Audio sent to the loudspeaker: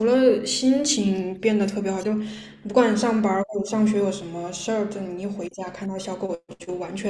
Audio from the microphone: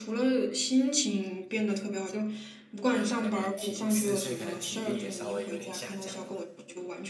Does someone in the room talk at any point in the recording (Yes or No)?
Yes